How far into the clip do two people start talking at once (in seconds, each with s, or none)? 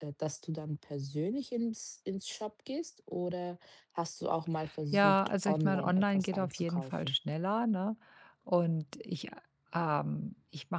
4.9 s